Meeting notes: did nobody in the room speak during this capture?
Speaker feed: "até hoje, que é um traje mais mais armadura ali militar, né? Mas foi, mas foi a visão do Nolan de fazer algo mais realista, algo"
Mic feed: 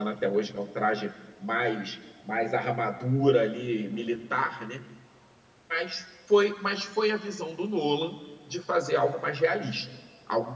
Yes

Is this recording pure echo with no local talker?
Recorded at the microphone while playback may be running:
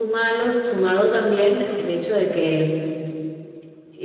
Yes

